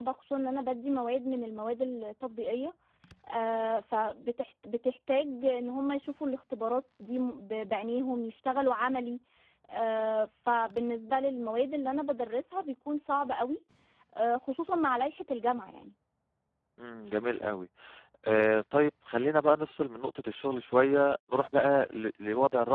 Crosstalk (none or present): none